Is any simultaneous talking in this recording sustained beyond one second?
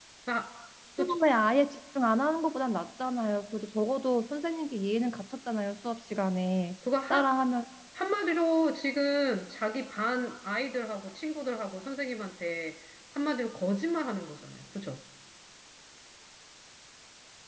No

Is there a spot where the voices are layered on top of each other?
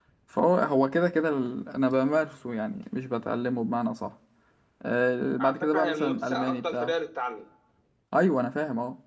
Yes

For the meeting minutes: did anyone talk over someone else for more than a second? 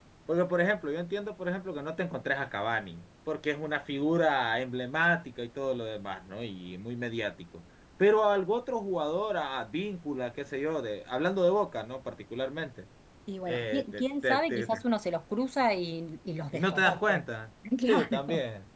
Yes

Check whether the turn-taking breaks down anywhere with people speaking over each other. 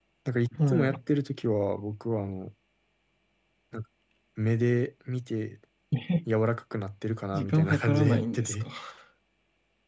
Yes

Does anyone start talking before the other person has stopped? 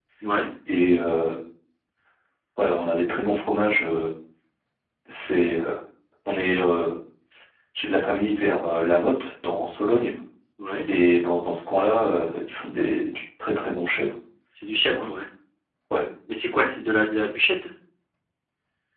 No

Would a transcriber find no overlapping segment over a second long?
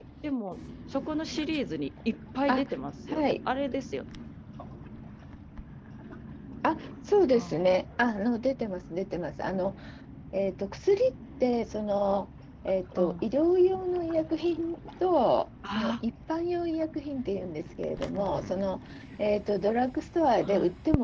Yes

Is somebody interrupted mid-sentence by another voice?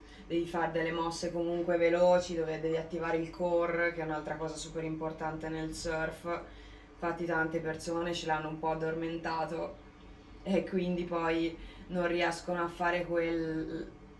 No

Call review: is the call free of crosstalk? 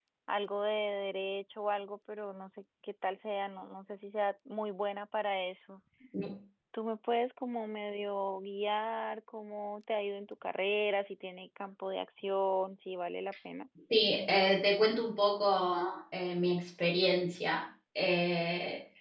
Yes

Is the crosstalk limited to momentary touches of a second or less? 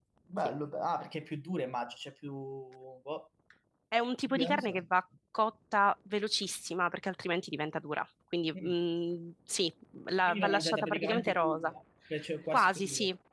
No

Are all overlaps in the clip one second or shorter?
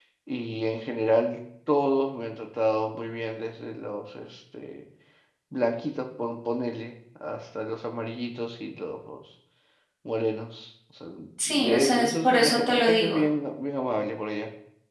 No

